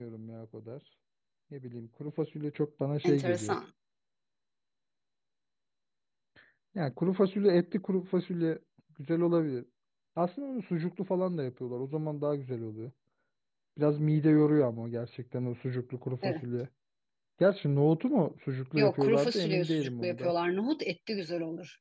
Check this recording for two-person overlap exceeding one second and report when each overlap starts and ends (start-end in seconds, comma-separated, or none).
18.8-20.3